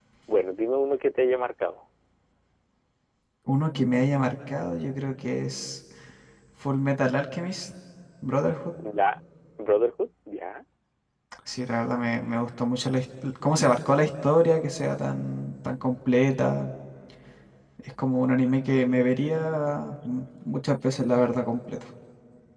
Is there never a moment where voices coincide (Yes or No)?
Yes